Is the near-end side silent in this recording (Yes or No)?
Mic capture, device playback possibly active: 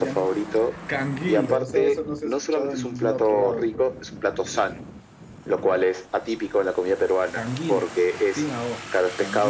No